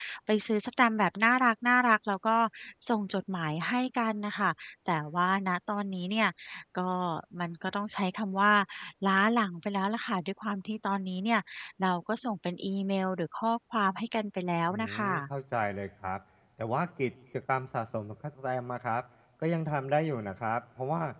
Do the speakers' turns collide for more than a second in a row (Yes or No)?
No